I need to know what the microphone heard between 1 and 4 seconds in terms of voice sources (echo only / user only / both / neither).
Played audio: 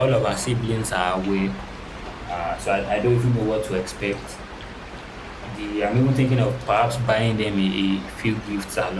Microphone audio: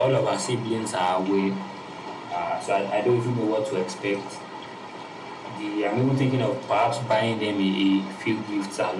echo only